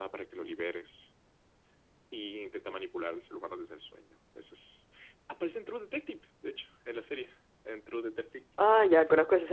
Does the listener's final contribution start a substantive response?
Yes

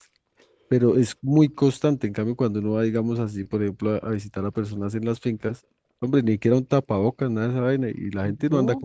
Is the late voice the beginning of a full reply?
No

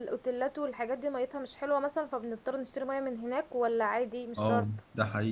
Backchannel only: No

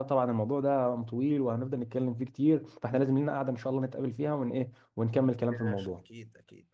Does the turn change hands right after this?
Yes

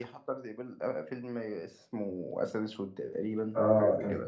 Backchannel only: No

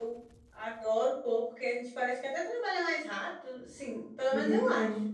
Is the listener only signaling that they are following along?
No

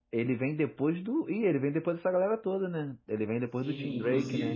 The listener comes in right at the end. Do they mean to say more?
Yes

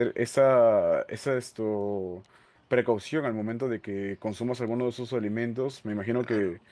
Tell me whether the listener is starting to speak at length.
No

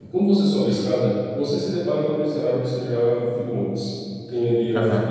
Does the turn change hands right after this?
No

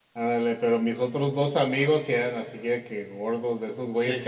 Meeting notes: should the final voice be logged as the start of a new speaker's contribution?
No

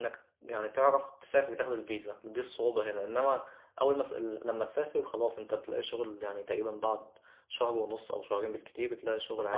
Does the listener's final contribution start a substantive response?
Yes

